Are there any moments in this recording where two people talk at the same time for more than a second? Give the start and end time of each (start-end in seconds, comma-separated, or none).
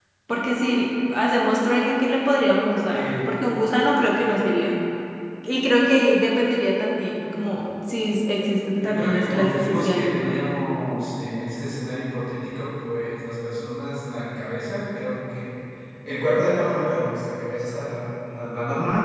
8.8-10.3